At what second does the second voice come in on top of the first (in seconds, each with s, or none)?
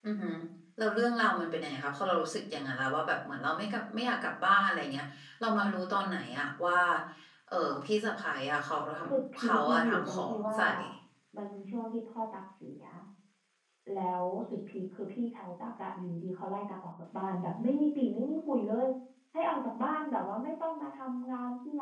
9.4 s